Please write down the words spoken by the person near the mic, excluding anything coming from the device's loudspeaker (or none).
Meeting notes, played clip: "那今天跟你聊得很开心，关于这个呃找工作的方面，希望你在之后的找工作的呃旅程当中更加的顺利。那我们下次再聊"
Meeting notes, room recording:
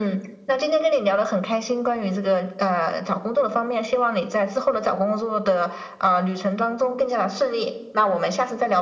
none